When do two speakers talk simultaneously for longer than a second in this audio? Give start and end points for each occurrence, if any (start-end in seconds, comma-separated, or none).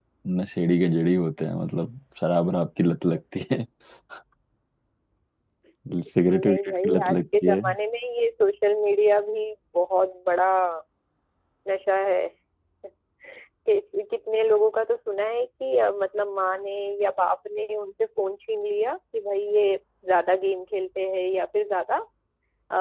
6.3-7.6